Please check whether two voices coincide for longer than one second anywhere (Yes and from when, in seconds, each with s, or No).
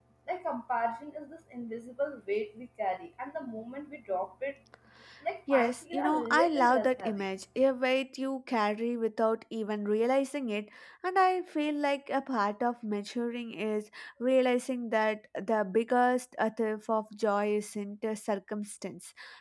Yes, from 5.5 s